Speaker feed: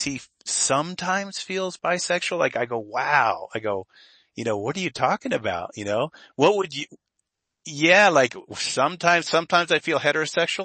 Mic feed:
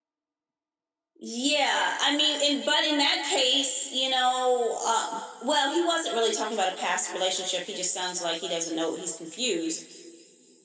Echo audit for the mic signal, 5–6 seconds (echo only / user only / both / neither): user only